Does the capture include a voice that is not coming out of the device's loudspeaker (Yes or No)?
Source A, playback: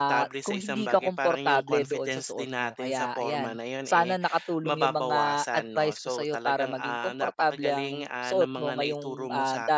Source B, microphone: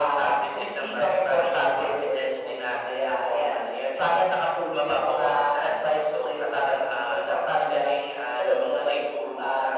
No